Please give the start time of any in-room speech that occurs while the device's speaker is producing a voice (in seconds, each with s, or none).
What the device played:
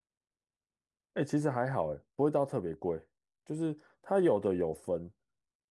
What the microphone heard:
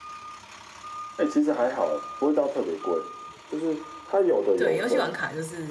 4.5 s